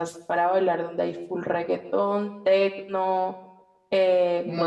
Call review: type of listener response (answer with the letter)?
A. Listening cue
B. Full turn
A